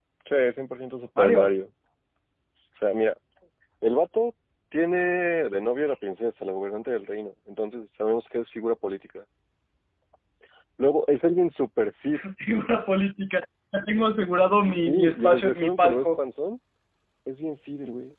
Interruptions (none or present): present